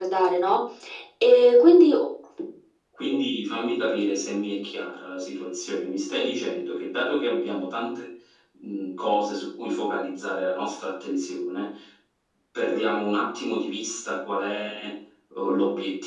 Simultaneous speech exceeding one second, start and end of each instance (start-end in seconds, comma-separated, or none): none